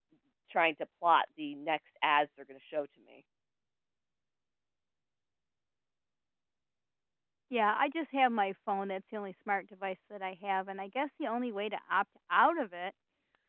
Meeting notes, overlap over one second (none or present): none